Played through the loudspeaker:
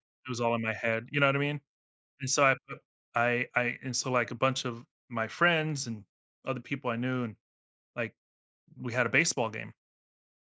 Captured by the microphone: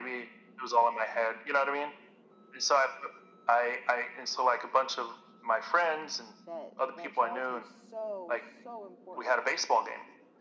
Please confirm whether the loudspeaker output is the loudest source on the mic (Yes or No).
Yes